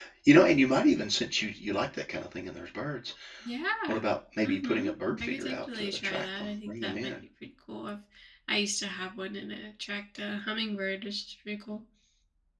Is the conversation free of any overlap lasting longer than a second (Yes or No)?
No